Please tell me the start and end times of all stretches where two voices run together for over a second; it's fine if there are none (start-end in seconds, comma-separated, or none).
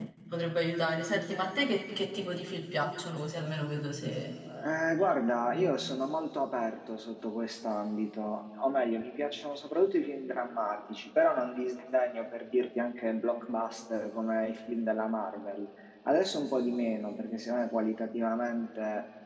none